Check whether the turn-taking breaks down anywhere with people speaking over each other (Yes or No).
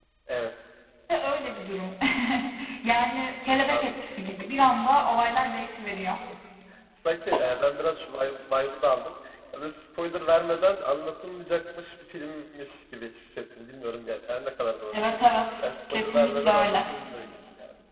Yes